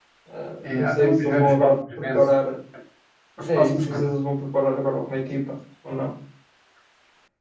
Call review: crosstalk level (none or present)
present